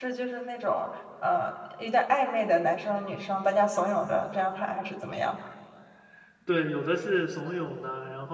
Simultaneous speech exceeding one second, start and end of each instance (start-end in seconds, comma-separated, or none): none